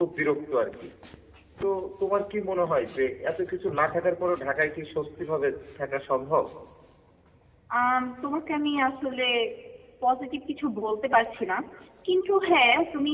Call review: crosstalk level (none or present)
none